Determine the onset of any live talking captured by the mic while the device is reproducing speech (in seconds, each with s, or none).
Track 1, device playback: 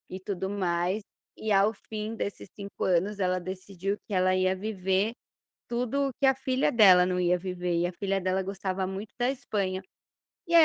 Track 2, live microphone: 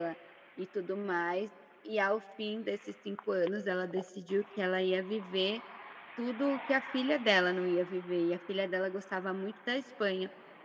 none